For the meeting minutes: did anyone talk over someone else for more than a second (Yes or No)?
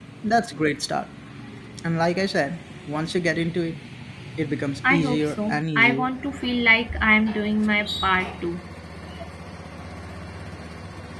Yes